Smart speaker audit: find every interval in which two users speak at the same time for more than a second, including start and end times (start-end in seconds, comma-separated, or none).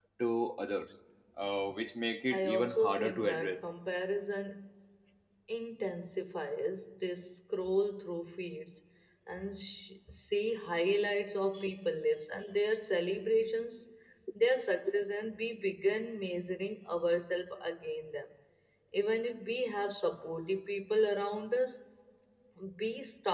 2.3-3.7